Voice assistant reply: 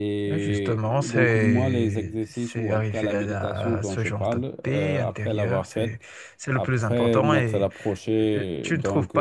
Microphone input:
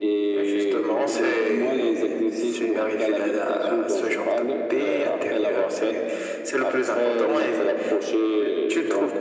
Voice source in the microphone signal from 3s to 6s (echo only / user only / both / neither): echo only